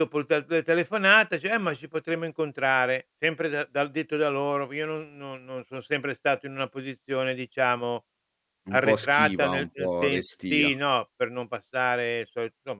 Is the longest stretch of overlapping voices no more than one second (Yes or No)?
No